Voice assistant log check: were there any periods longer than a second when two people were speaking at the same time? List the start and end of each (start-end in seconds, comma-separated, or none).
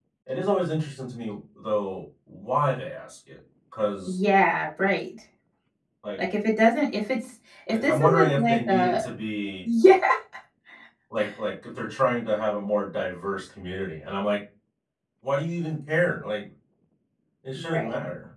7.7-9.0